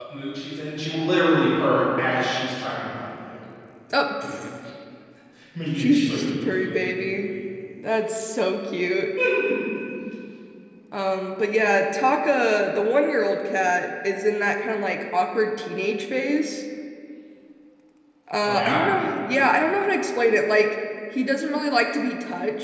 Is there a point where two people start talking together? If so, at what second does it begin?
6 s

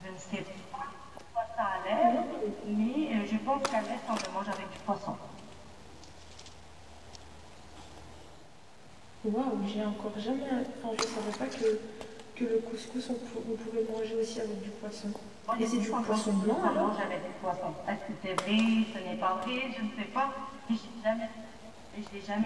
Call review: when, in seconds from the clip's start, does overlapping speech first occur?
16 s

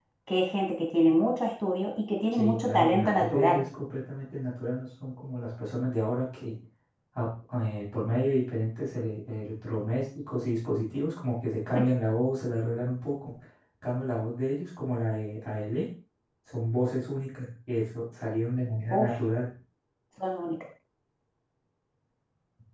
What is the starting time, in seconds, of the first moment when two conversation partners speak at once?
2 s

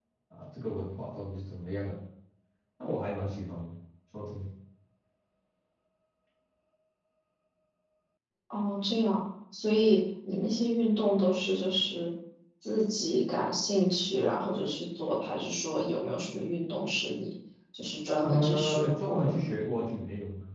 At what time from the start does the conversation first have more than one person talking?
18 s

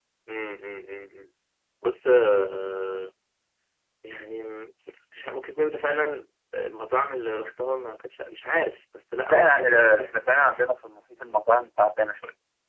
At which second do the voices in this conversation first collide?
9 s

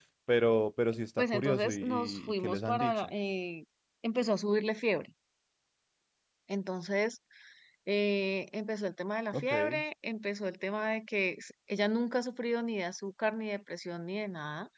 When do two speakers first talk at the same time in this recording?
1 s

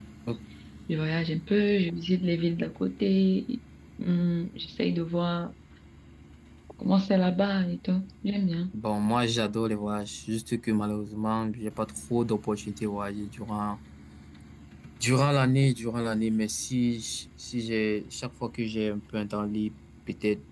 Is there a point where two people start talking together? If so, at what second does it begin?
none

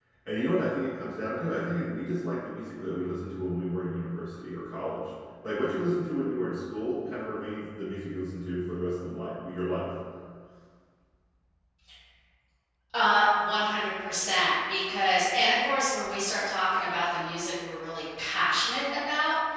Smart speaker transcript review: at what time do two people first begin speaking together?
none

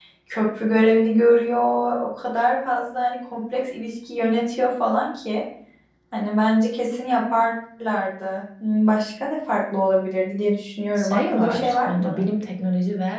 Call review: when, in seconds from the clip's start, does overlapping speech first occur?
11 s

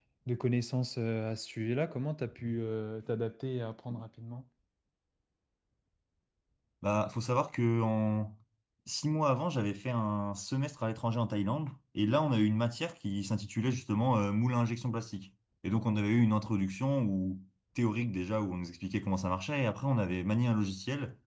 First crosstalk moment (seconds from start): none

